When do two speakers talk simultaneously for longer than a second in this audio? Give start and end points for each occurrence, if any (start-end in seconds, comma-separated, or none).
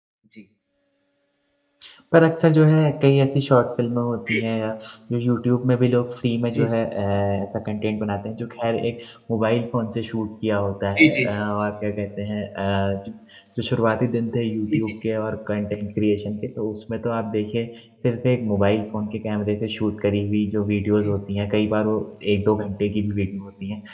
none